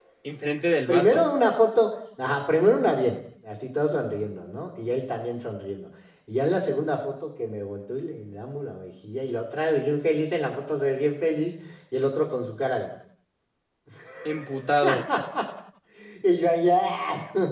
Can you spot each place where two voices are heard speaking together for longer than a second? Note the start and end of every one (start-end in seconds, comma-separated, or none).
none